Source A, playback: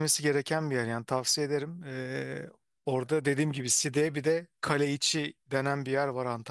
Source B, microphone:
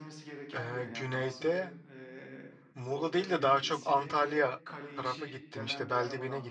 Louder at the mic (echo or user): user